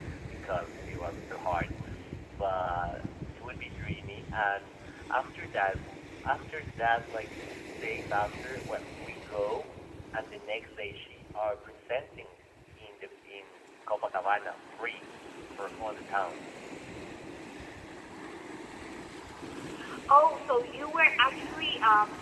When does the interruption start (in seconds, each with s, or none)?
none